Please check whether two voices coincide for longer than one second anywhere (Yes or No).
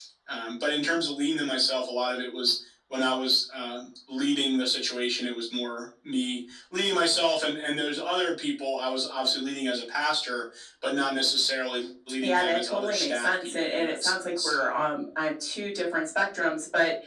Yes